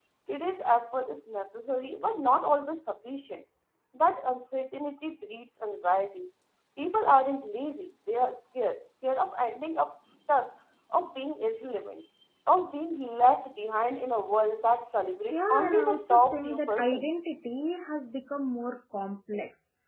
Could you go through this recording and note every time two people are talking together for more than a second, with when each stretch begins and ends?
15.3-17.1

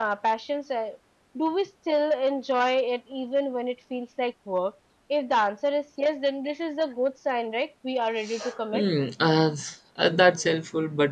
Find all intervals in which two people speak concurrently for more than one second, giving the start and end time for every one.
none

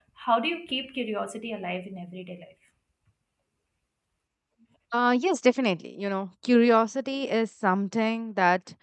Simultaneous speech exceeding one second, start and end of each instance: none

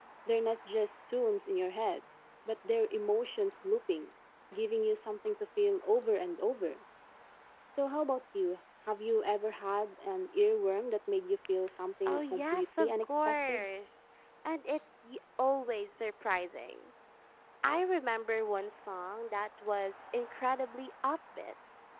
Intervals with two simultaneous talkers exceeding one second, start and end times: 12.1-13.7

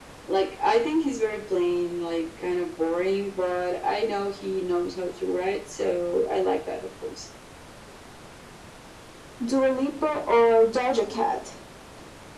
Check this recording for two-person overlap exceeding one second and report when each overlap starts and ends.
none

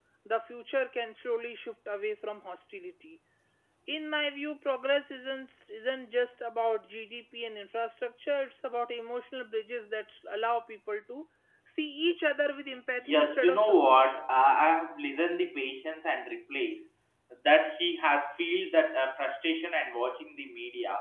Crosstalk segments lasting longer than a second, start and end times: 13.0-14.2

